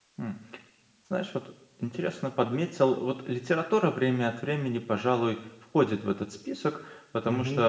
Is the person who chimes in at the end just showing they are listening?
No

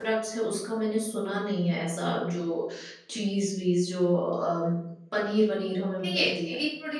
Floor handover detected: Yes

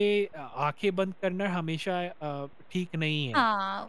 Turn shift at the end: Yes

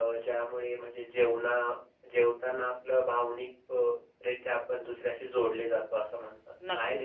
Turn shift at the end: Yes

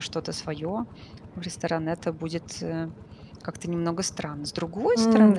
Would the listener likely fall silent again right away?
No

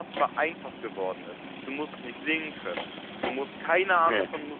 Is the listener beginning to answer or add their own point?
No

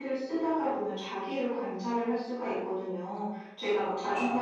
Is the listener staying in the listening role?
Yes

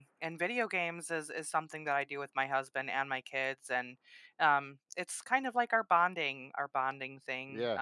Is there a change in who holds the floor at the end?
No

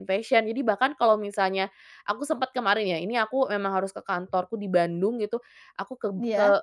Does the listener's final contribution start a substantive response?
No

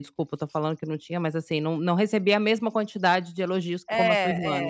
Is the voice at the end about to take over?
Yes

